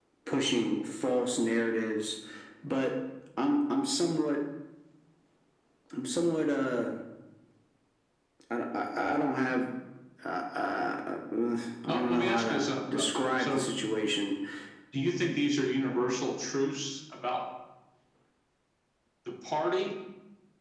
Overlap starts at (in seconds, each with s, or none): 11.9 s